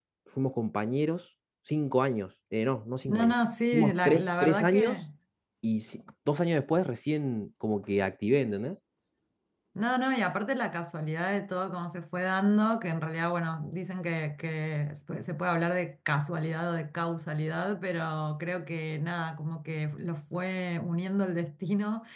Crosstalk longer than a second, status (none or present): present